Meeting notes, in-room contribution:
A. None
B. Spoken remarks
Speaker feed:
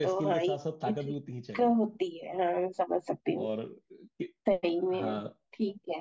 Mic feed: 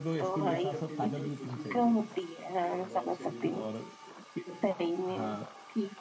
B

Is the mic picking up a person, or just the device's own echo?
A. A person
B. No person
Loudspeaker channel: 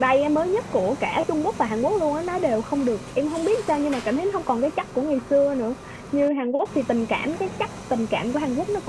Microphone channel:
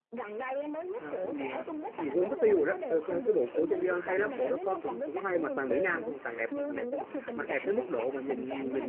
A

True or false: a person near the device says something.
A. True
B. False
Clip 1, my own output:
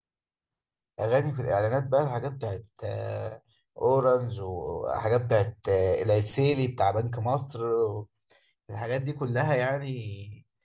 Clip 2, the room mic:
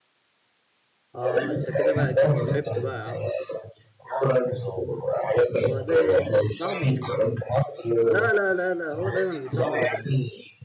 A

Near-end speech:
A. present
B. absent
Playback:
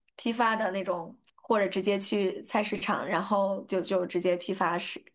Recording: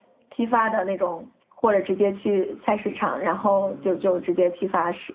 A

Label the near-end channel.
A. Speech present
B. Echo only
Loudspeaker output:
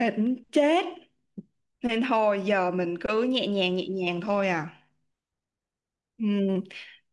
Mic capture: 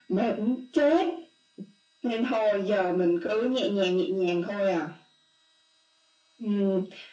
B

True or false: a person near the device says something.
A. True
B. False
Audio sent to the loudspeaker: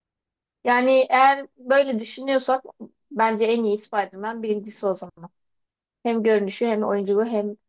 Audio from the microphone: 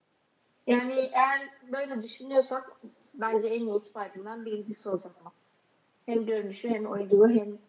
B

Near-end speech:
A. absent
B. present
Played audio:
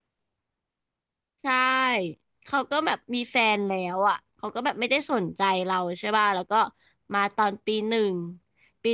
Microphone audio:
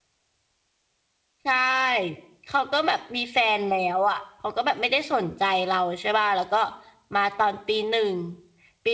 A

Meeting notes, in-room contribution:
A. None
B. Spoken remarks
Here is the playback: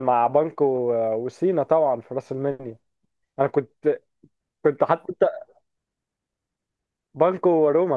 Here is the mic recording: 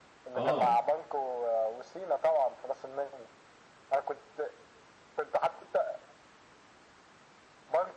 B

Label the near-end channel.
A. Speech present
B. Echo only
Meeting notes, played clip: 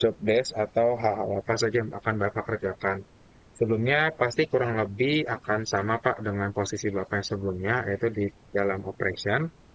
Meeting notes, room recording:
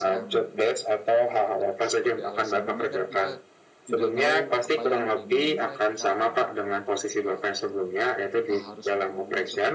A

